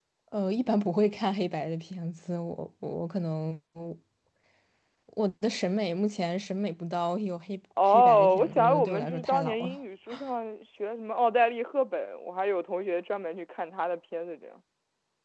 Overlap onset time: 8 s

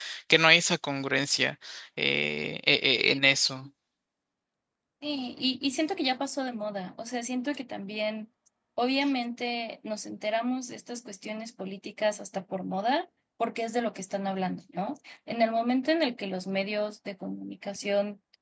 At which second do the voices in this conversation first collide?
none

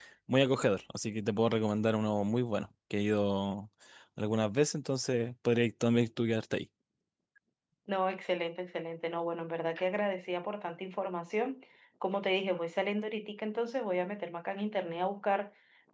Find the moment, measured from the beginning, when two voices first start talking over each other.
none

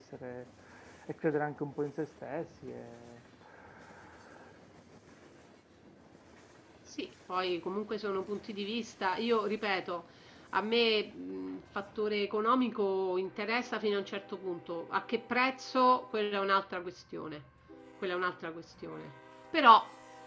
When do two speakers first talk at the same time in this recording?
none

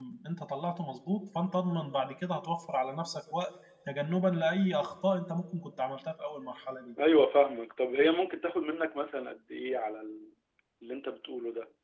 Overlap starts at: none

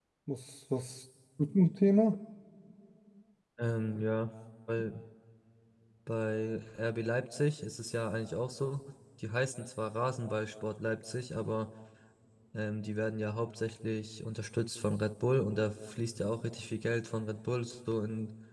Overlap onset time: none

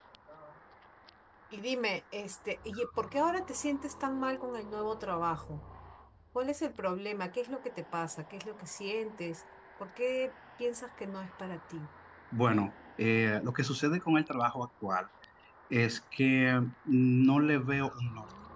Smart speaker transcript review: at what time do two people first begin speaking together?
none

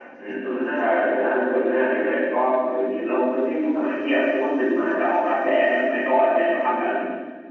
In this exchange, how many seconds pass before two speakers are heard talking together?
1 s

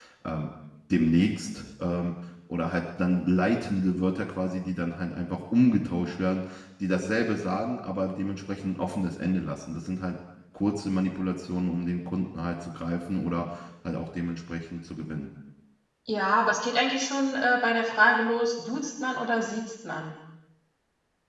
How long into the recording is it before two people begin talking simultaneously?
none

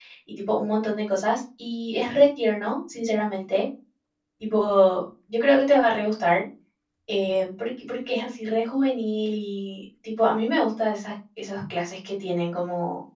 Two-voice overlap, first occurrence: none

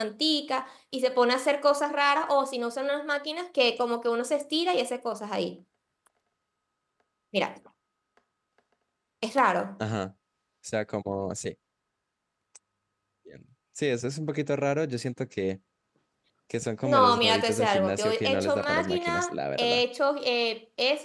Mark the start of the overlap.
17 s

